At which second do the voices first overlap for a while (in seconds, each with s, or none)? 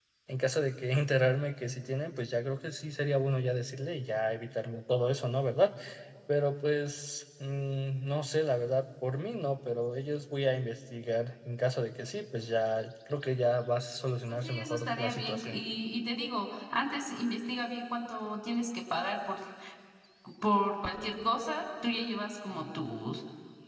14.3 s